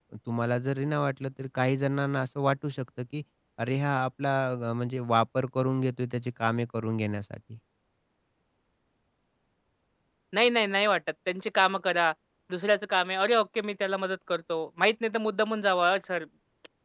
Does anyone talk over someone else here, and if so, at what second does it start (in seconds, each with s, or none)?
none